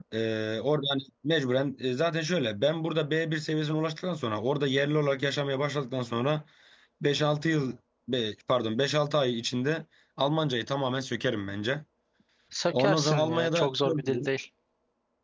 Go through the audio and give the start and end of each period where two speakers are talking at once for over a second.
12.7-14.3

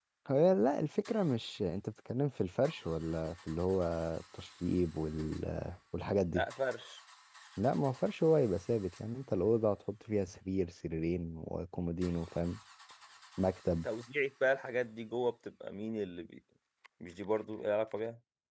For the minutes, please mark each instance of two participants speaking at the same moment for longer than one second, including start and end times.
none

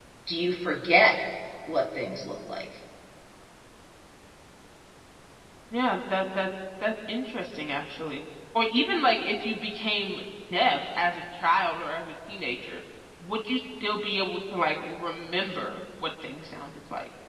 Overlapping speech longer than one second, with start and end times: none

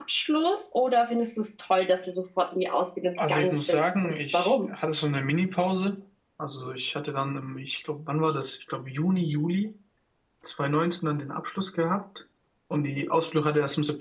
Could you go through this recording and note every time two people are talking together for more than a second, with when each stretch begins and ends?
3.3-4.6

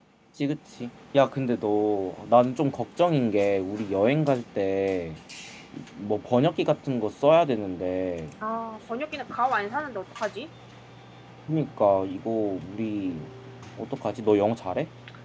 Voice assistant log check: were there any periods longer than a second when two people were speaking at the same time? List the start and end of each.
none

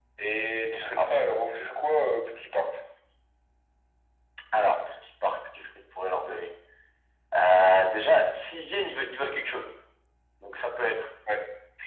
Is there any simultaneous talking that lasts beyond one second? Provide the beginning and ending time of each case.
none

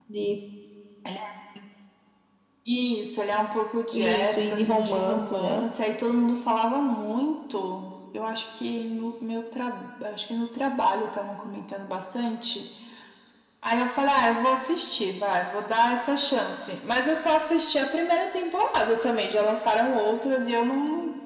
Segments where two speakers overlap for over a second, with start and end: 3.9-5.6

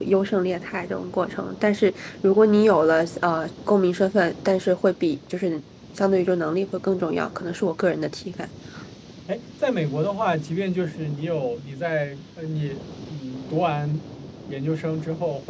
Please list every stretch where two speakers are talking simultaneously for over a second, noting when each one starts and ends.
none

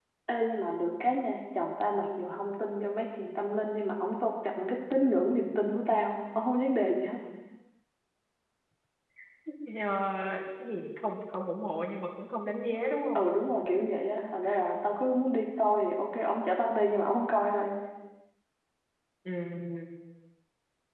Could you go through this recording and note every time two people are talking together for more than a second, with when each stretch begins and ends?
none

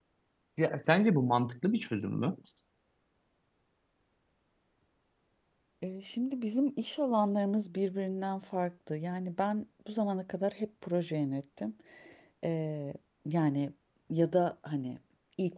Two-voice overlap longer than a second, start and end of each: none

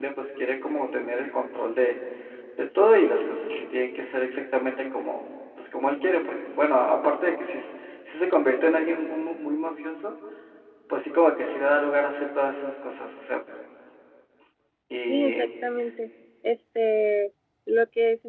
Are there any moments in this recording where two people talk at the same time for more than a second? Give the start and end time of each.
none

